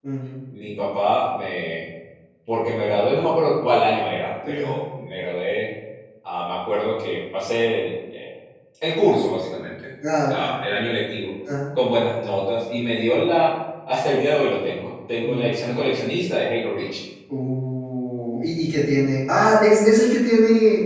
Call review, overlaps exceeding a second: none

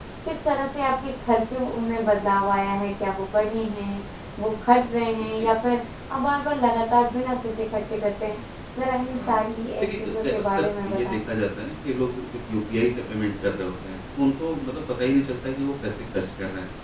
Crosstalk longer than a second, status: present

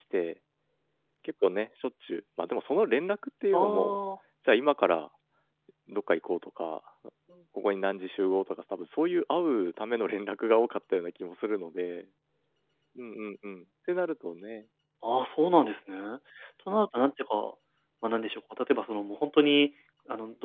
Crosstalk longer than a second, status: none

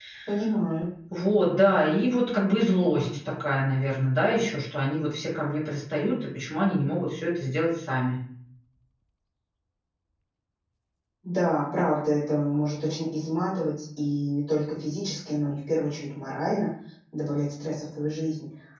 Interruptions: none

